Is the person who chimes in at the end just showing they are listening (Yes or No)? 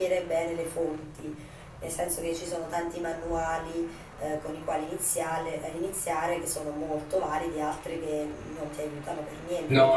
No